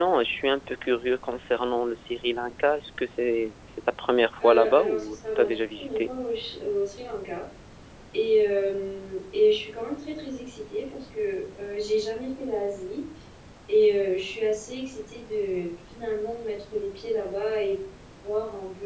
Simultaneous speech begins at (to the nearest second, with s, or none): 4 s